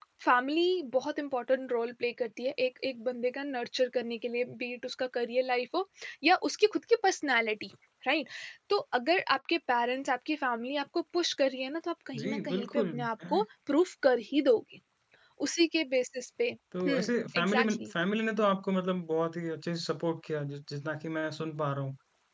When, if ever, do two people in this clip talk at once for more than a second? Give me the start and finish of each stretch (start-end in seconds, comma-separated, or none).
12.2-13.4